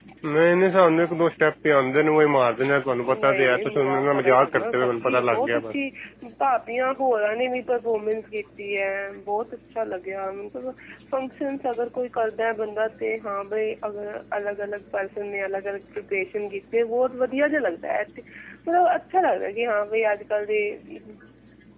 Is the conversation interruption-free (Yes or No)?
No